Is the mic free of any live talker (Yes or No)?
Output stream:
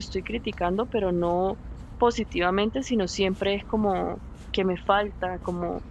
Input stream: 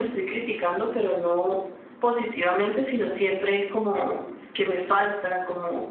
Yes